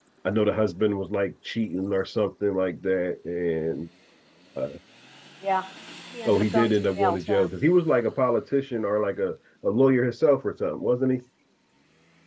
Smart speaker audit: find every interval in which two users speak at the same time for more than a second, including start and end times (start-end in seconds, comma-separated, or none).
6.2-7.5